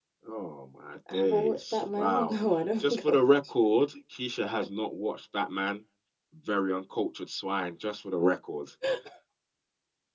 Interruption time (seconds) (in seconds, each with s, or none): 1.1 s